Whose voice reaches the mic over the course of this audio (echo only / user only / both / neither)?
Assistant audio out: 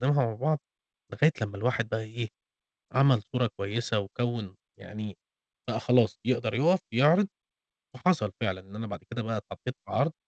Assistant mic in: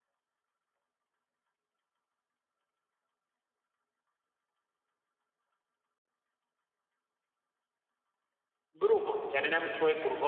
user only